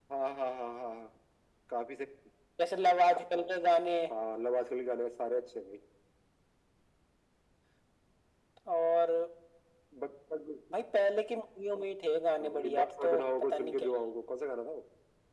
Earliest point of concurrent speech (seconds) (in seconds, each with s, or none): 12.4 s